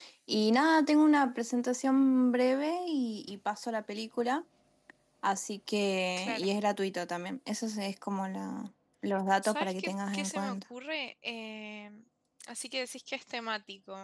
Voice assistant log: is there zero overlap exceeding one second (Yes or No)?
No